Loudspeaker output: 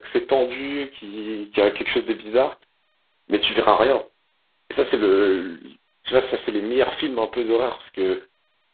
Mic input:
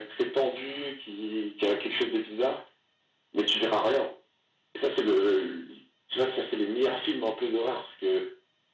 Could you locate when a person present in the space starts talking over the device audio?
none

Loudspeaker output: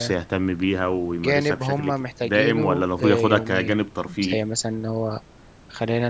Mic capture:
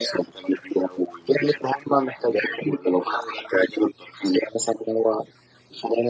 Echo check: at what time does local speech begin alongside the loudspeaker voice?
none

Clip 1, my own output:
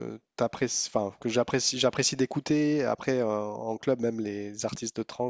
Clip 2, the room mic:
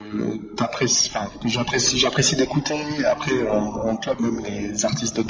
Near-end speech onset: none

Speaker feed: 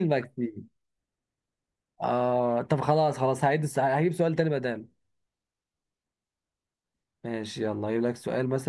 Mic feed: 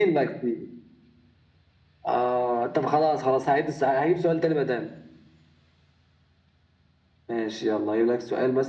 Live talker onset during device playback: none

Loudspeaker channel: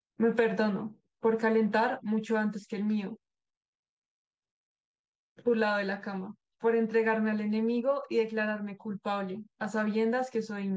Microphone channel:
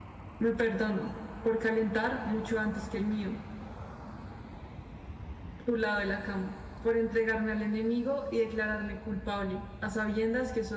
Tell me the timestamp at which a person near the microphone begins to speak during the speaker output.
none

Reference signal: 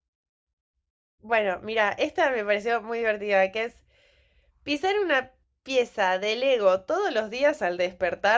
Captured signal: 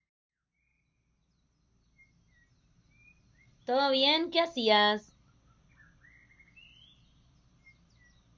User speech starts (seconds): 3.6 s

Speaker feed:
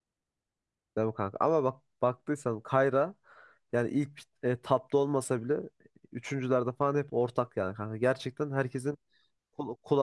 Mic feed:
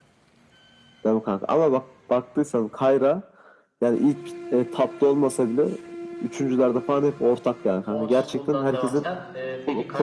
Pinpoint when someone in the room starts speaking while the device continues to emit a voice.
7.9 s

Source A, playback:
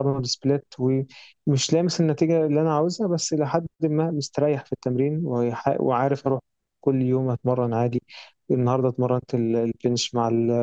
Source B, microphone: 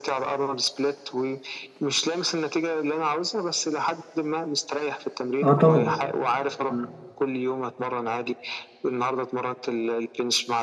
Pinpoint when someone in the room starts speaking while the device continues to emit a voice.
5.4 s

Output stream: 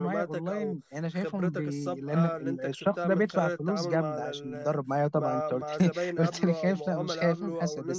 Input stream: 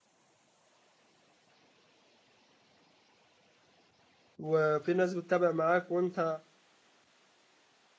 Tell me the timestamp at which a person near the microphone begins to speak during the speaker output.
4.4 s

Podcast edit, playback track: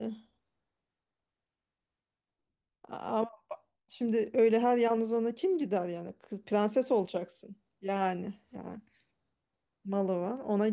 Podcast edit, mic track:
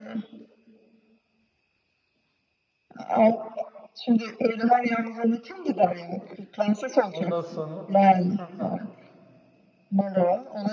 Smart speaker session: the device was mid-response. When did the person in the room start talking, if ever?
7.1 s

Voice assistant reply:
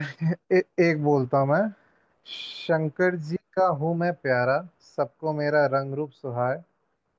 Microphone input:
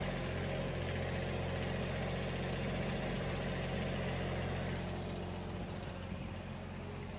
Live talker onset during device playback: none

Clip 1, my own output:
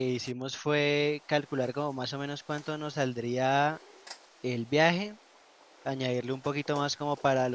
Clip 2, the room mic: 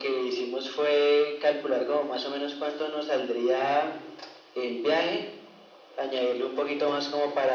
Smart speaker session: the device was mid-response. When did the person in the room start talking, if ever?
none

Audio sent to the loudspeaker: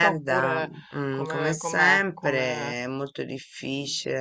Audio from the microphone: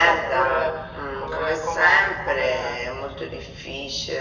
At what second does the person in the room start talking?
none

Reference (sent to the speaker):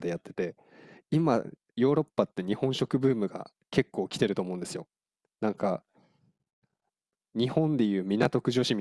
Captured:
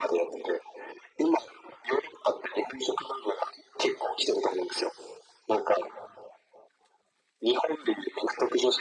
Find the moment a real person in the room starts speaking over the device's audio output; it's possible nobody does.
none

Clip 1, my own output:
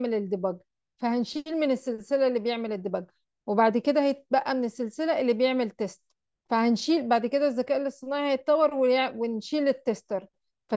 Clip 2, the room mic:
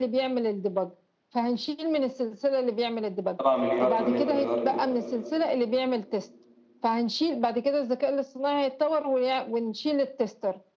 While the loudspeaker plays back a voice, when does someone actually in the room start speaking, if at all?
3.4 s

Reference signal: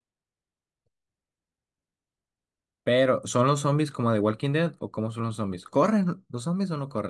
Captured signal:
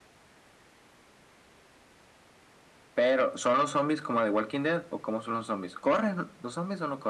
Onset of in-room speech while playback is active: none

